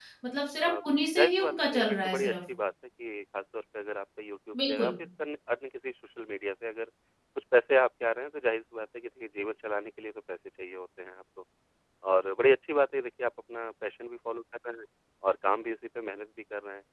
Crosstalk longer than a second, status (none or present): present